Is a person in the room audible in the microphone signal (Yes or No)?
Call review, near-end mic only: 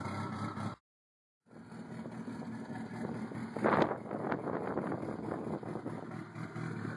No